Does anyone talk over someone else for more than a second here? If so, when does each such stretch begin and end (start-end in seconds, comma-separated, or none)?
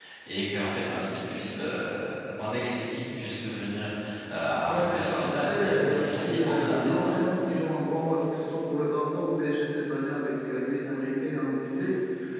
4.7-7.2